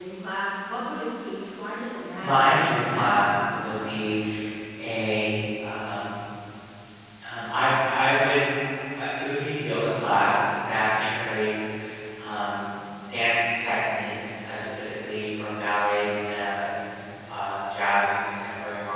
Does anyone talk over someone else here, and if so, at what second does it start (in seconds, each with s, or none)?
2.2 s